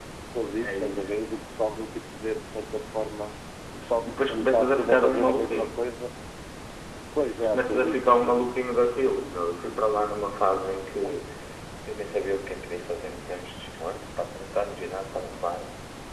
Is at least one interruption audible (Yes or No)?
Yes